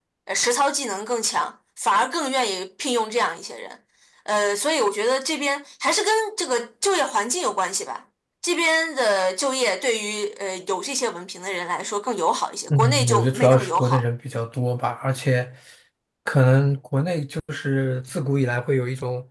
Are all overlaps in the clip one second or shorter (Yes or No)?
No